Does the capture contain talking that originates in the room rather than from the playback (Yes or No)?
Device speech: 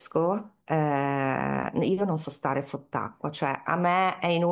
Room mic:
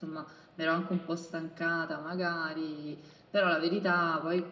Yes